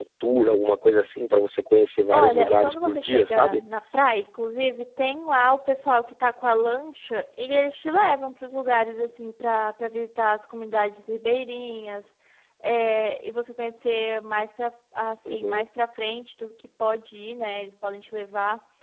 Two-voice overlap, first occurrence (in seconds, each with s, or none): 2.1 s